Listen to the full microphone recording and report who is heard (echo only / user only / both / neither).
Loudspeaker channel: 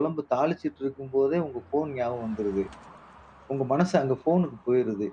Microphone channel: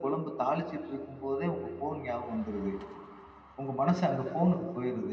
echo only